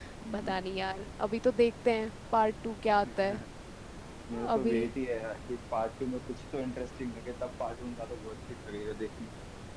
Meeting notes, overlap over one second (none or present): none